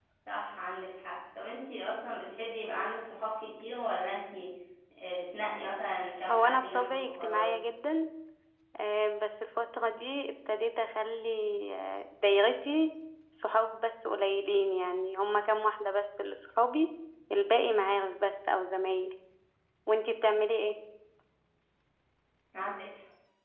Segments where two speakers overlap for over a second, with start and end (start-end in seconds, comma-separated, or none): 6.3-7.6